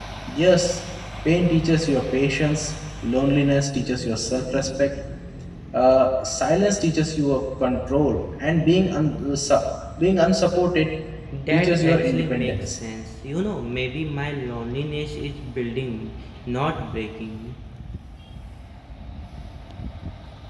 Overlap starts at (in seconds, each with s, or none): 11.5 s